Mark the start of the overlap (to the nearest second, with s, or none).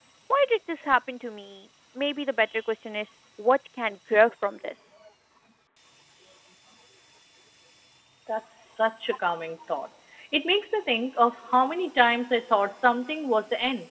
none